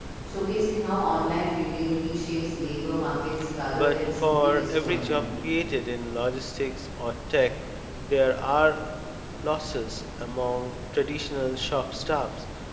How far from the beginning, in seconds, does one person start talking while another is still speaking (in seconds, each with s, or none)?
3.7 s